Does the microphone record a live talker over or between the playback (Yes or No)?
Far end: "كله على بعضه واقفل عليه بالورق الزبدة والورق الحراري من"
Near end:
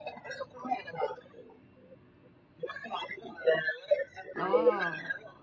Yes